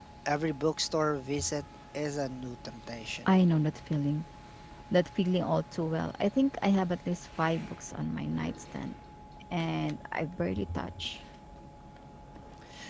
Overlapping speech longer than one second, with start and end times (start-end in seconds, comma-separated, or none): none